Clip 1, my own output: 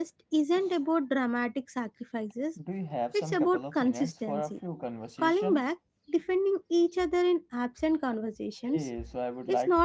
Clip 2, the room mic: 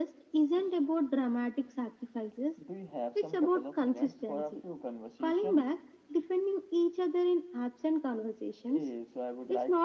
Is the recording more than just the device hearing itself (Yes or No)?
No